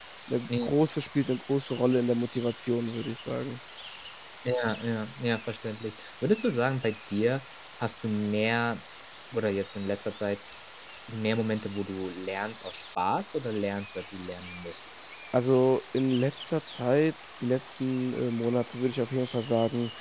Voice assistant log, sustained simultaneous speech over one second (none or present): none